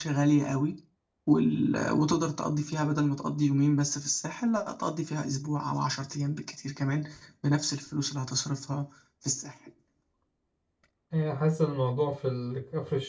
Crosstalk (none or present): none